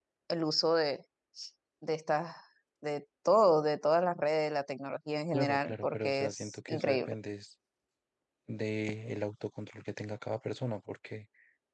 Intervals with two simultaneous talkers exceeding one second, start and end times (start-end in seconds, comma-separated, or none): 5.3-7.1